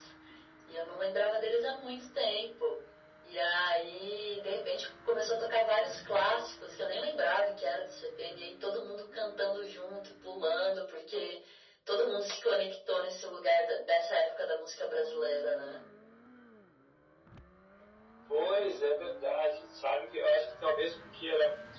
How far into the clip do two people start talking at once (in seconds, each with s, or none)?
none